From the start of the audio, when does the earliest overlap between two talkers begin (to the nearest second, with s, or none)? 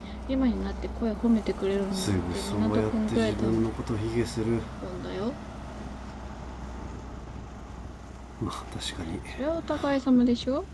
2 s